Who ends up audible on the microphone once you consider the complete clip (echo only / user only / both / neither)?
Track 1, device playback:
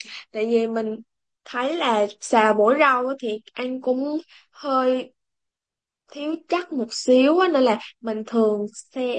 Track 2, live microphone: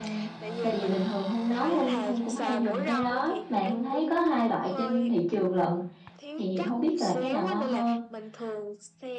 both